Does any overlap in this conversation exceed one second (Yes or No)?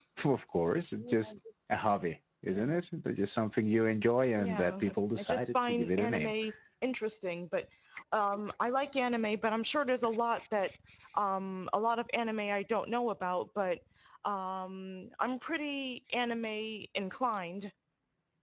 Yes